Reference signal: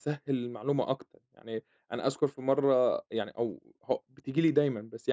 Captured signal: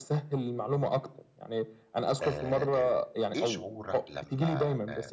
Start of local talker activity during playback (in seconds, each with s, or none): 2.2 s